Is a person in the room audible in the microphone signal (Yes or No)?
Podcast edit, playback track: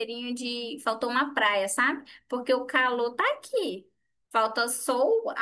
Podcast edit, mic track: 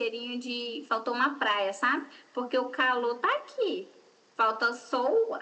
No